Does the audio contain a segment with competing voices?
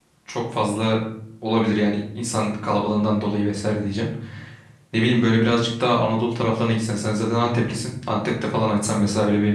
No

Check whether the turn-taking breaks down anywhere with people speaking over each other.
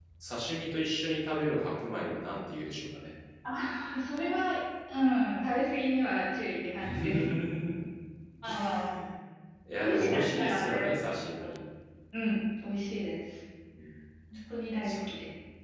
Yes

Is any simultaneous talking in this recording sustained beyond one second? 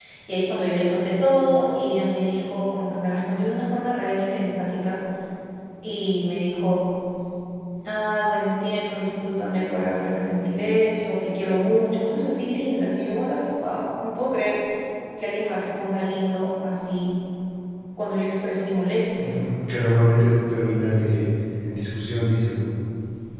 No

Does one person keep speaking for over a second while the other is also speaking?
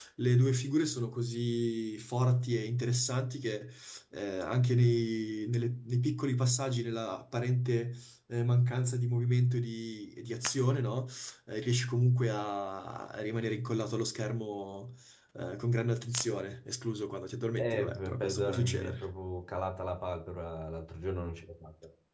Yes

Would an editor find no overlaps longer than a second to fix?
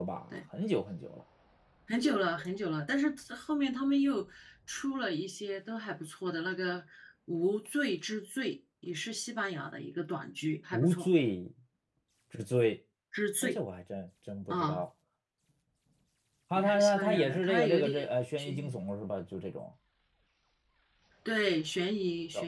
No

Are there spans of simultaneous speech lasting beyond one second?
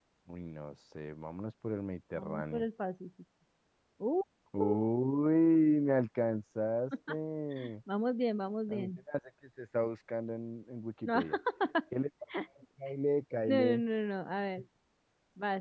No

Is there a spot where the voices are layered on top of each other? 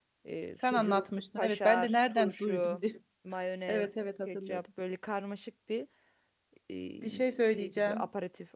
Yes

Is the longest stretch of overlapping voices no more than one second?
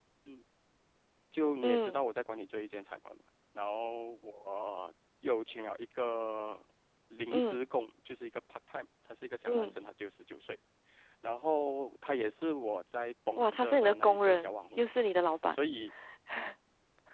No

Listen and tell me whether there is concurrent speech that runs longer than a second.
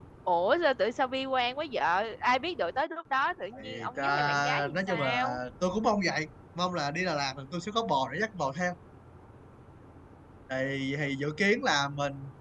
Yes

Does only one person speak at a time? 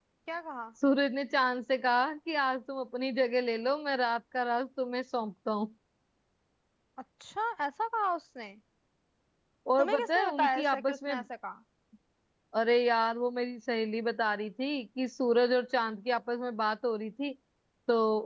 No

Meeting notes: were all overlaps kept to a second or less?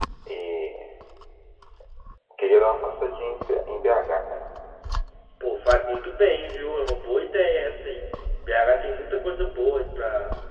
Yes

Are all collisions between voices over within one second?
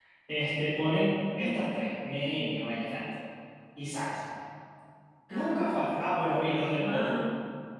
No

